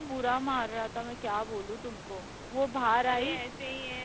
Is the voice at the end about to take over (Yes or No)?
Yes